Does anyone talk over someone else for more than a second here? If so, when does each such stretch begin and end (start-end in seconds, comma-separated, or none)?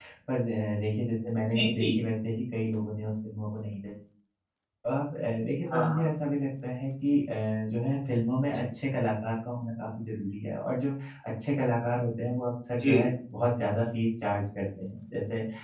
none